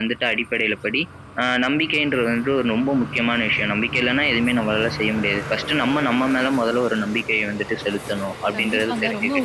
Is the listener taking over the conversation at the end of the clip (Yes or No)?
Yes